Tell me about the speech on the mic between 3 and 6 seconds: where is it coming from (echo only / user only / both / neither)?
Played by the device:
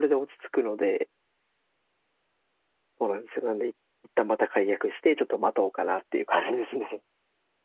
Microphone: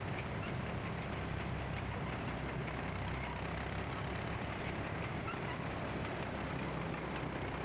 neither